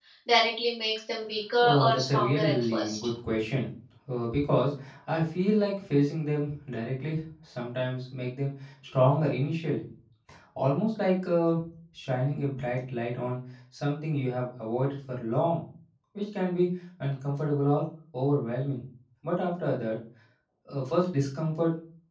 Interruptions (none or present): present